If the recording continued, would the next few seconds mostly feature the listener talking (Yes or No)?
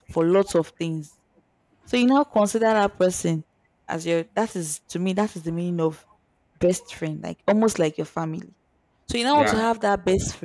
No